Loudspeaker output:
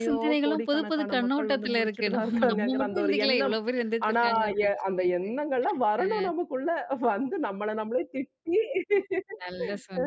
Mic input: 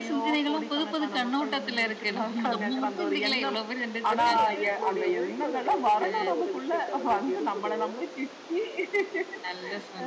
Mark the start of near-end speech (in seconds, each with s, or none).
4.1 s